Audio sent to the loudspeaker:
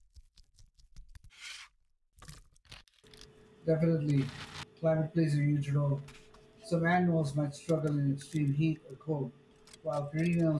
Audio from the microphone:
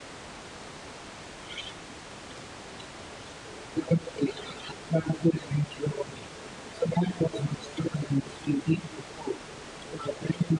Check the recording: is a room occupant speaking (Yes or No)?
No